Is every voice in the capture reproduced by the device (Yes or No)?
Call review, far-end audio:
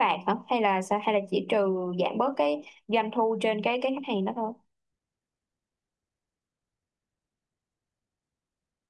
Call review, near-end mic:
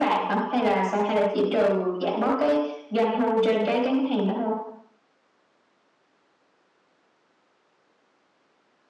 Yes